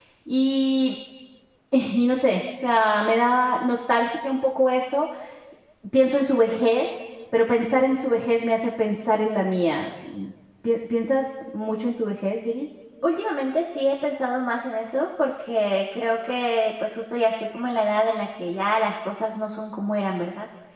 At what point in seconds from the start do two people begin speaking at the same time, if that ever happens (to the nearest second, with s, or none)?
none